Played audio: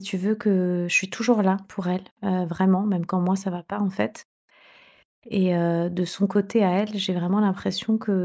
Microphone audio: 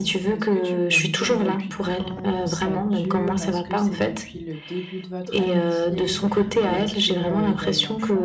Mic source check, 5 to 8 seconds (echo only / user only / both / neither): both